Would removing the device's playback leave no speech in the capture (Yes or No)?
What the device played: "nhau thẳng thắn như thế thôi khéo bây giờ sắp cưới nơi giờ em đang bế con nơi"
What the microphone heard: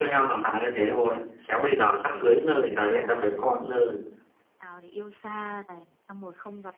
No